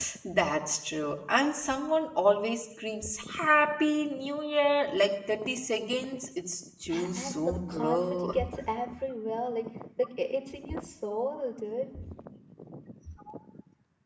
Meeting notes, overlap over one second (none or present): present